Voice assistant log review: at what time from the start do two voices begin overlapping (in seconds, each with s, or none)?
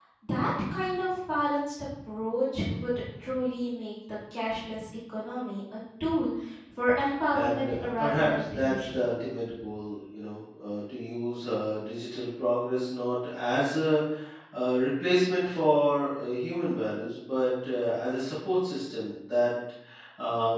7.3 s